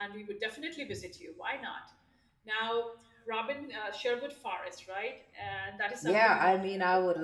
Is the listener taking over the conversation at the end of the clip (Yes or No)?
Yes